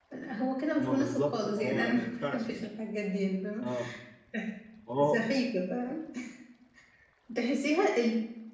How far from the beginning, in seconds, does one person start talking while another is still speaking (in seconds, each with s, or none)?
0.8 s